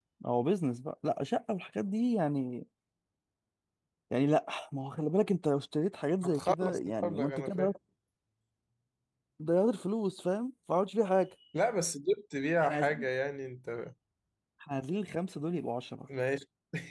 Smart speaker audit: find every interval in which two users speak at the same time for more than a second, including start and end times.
6.2-7.7

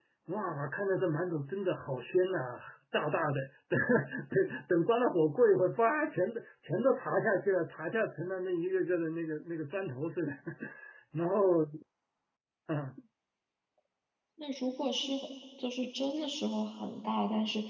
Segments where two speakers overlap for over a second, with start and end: none

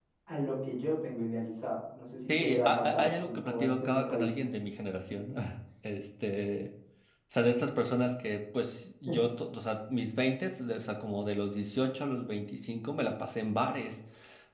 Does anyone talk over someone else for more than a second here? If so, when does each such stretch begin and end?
2.1-4.6

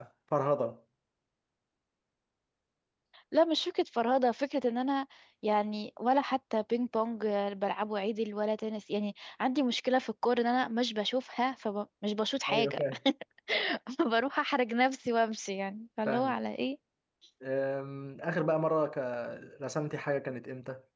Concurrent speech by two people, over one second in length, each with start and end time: none

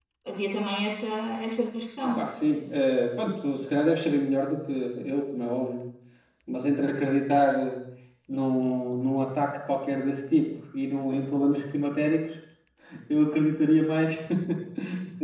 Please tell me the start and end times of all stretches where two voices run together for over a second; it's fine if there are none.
none

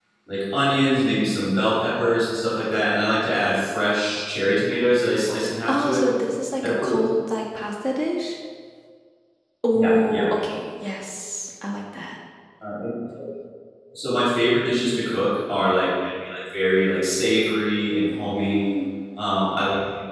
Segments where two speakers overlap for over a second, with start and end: none

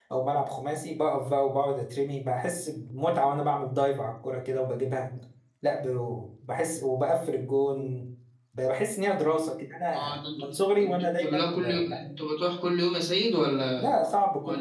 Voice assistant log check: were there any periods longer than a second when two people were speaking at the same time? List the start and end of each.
9.9-12.0

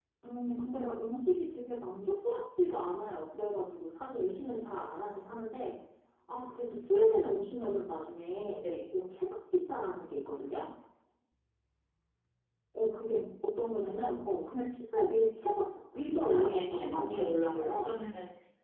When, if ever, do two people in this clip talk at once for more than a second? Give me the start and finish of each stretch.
16.1-17.9

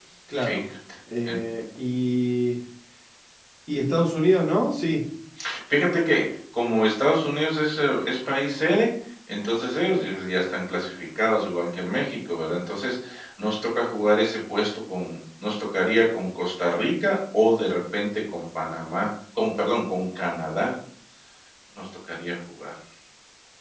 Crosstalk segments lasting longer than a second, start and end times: none

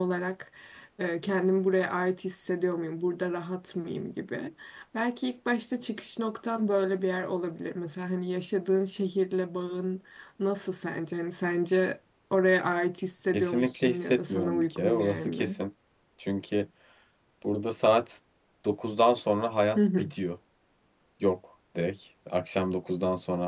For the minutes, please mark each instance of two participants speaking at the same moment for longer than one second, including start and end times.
13.3-15.6

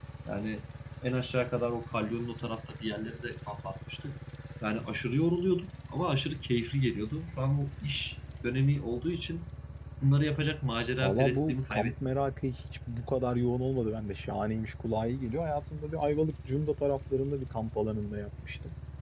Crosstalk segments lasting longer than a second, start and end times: 11.0-12.2

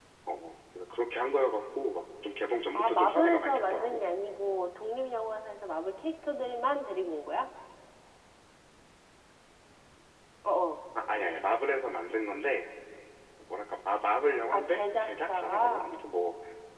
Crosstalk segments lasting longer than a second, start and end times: 2.8-4.0, 14.5-16.1

